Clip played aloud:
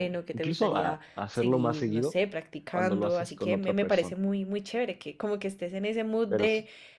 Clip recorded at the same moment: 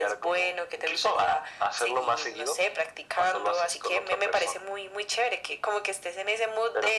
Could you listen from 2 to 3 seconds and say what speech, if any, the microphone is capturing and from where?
echo only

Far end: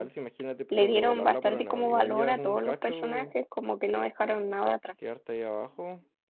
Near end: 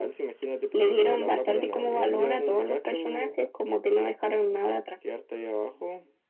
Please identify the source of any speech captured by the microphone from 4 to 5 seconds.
echo only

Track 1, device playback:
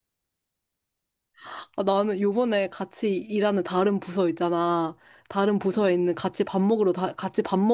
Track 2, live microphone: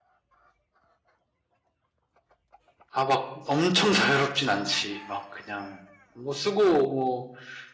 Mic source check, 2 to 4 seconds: user only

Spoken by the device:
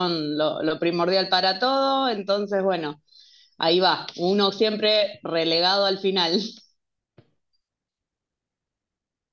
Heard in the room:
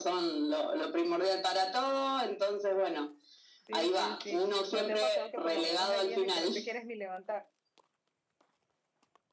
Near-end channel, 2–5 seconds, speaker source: both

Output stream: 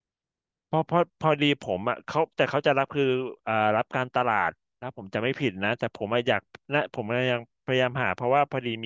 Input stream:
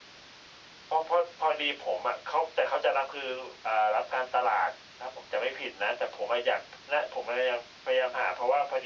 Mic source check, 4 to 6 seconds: echo only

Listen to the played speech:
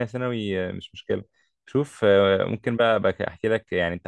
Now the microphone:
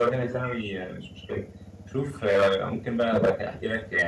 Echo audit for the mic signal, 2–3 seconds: echo only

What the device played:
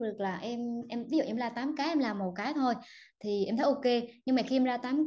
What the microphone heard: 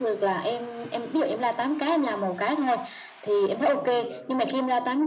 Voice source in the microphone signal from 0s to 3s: echo only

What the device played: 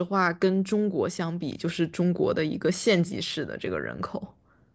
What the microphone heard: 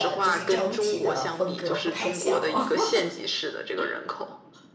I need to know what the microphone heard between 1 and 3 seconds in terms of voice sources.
both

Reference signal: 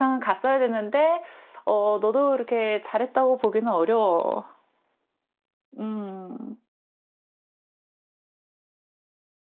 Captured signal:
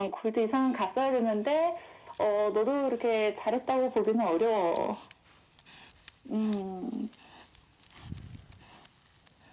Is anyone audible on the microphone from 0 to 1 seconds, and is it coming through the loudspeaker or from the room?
echo only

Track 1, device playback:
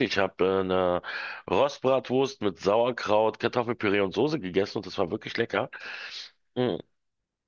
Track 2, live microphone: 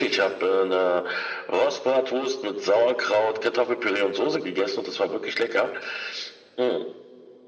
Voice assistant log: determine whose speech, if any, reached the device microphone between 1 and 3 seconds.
echo only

